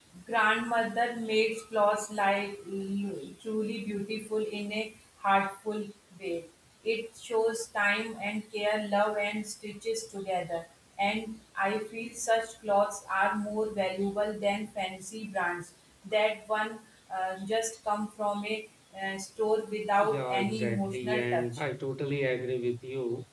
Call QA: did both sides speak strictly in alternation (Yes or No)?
No